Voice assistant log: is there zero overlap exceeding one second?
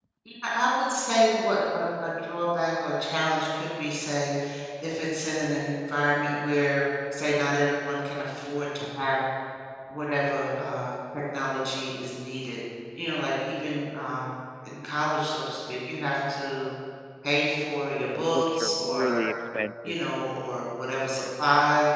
No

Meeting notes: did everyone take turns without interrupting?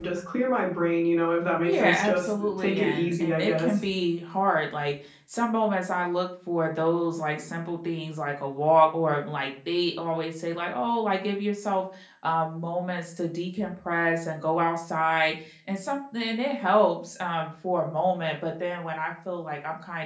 No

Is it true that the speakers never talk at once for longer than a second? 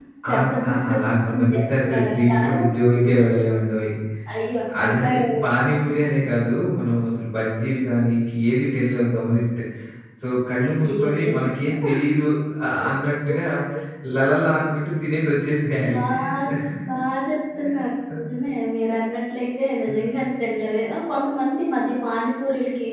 No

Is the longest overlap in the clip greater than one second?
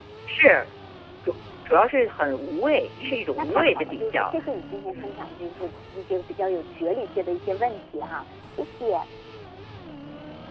Yes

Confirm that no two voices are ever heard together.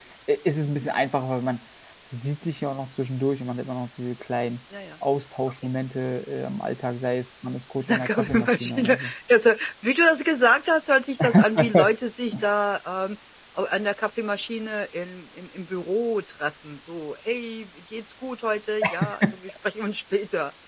No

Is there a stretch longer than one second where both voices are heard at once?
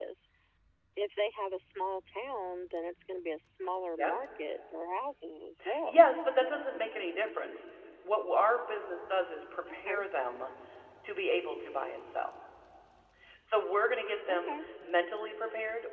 No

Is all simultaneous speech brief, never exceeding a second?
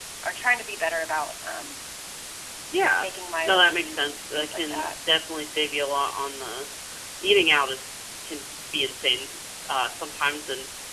No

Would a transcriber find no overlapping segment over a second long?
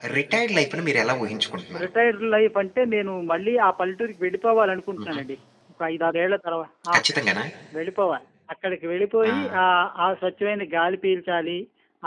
Yes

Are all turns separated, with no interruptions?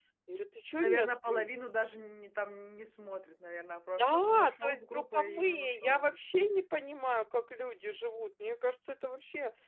No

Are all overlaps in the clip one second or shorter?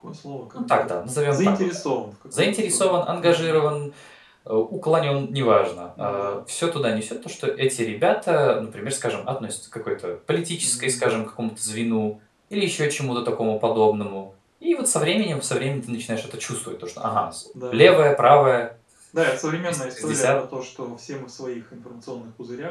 No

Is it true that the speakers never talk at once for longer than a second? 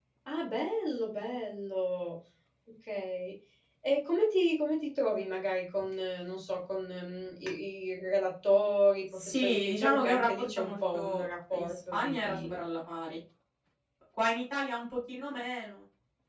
No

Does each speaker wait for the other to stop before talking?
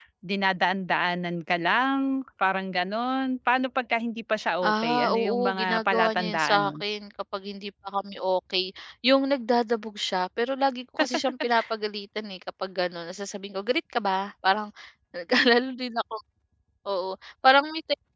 No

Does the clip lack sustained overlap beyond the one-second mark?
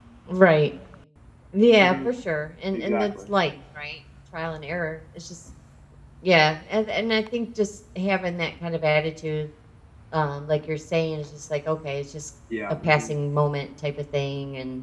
Yes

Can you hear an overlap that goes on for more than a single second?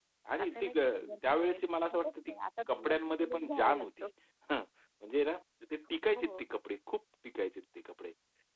Yes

